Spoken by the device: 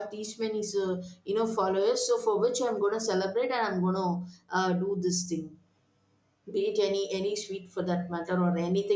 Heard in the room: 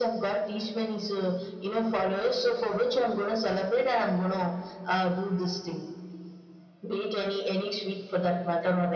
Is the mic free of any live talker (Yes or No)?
Yes